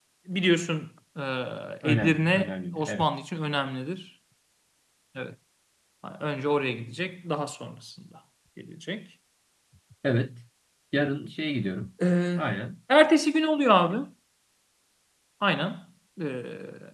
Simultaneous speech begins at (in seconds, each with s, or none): 1.8 s